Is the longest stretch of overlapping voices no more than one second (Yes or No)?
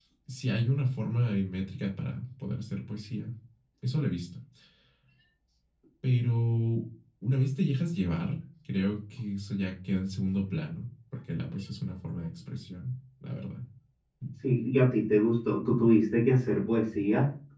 Yes